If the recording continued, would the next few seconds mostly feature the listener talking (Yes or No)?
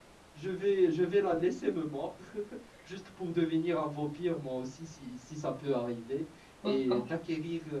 No